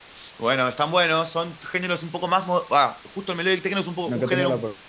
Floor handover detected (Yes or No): Yes